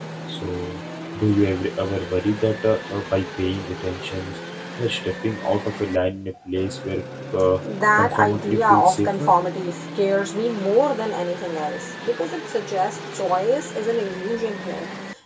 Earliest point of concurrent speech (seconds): 8.0 s

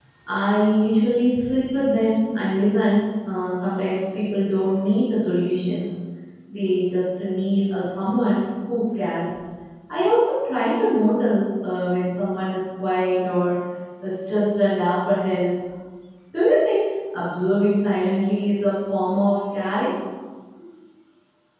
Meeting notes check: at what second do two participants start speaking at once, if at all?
none

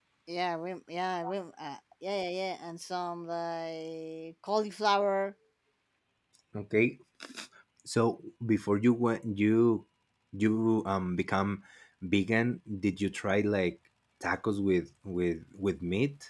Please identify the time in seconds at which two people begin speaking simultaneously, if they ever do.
none

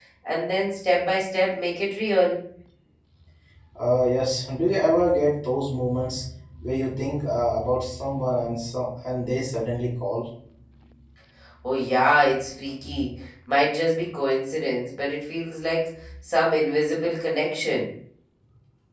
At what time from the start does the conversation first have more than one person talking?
none

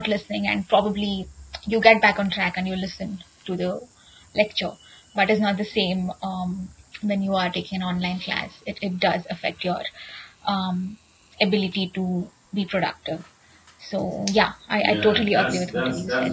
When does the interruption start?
14.8 s

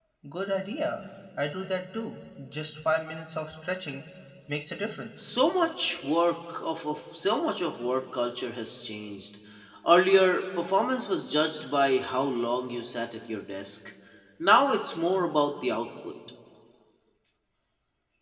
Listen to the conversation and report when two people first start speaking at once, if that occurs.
none

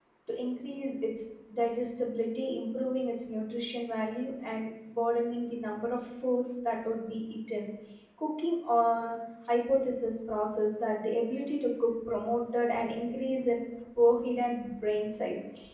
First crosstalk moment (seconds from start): none

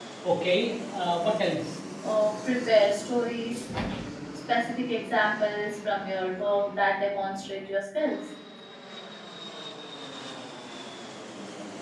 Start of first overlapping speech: none

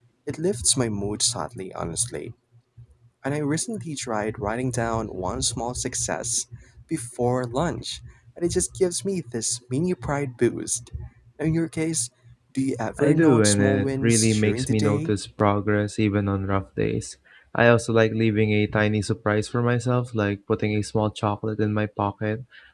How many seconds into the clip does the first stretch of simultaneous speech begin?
13.0 s

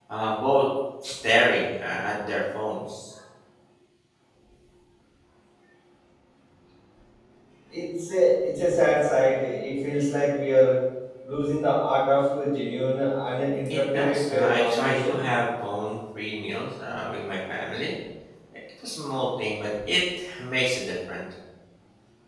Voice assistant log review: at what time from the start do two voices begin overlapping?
13.6 s

